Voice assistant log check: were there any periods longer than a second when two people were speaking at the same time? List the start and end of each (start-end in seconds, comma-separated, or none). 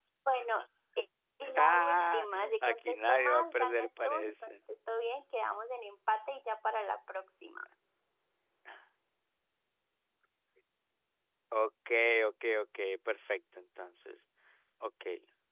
1.6-4.5